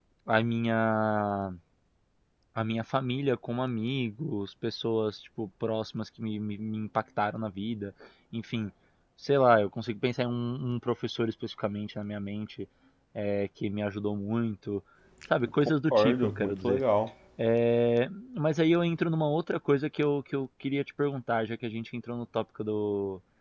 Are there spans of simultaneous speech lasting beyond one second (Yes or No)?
Yes